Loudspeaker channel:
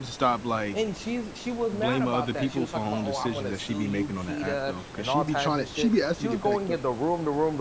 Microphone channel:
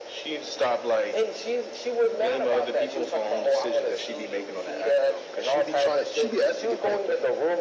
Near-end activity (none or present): none